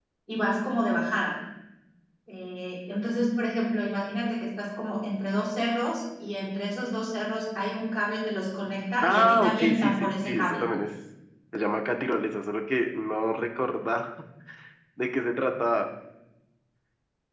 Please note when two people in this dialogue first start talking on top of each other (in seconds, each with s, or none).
9.0 s